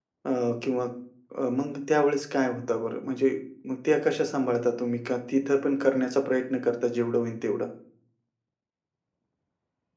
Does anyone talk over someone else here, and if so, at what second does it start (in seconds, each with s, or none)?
none